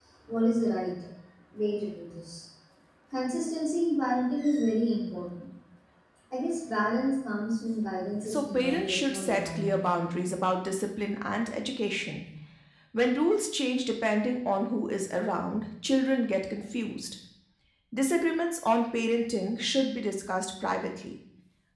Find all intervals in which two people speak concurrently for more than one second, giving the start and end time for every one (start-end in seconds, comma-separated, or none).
8.3-9.7